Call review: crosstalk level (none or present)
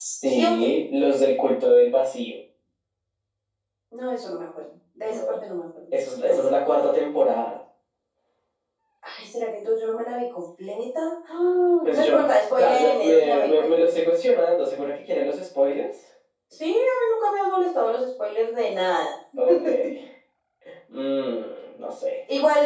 present